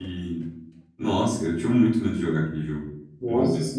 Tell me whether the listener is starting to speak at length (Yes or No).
Yes